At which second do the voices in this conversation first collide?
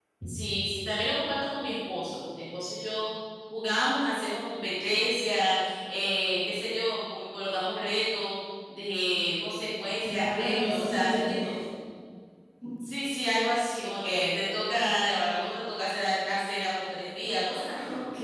10.1 s

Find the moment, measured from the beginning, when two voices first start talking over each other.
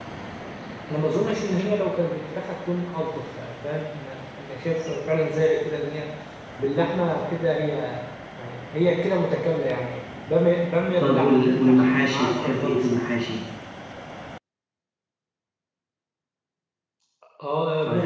11.0 s

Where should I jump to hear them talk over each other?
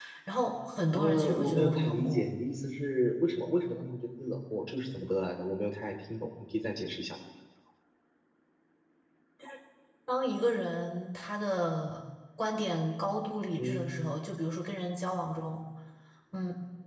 0.9 s

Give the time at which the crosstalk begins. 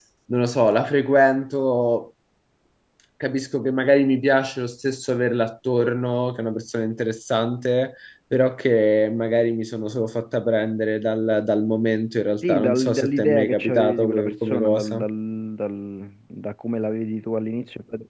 12.4 s

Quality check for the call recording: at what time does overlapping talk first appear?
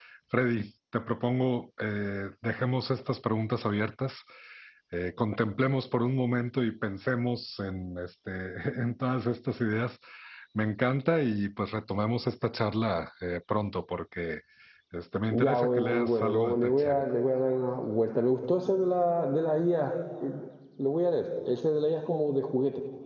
15.3 s

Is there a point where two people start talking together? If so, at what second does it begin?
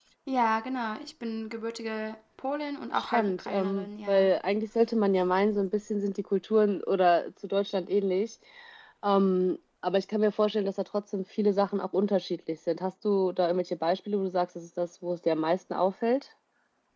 3.0 s

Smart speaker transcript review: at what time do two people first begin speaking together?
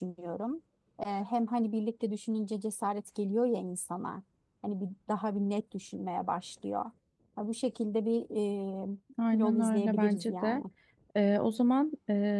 9.3 s

